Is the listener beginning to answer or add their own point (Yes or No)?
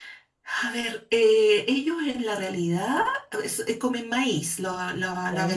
Yes